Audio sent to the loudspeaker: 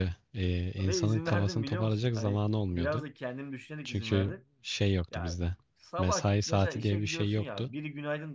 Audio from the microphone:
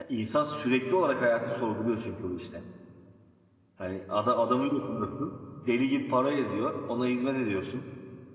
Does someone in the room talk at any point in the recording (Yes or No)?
Yes